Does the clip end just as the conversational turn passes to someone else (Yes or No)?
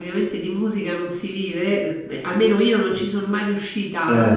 No